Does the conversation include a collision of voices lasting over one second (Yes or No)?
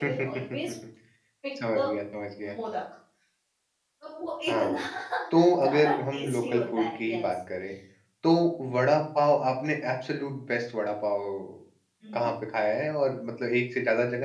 Yes